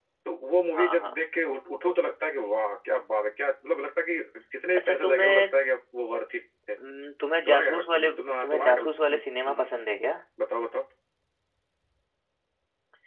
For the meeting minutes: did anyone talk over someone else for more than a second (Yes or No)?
Yes